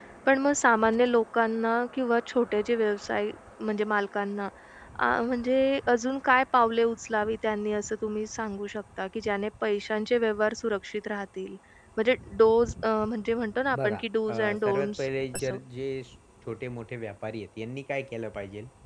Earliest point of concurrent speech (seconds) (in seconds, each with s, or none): 13.7 s